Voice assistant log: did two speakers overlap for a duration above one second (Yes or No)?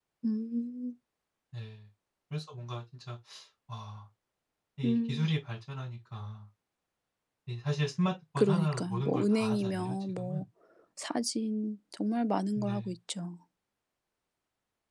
Yes